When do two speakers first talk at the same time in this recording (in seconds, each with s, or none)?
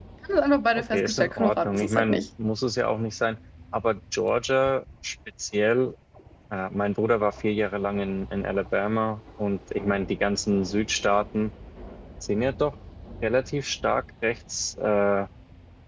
0.9 s